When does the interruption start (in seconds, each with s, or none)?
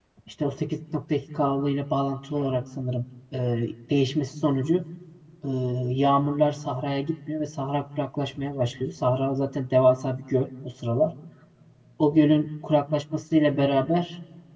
none